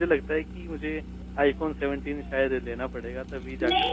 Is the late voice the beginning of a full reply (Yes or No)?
Yes